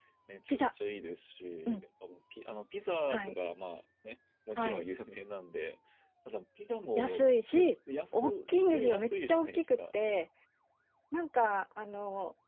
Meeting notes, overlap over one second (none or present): present